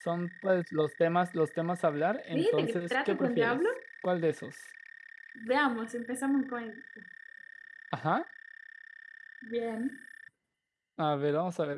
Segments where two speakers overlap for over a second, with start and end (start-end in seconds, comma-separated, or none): 2.3-3.6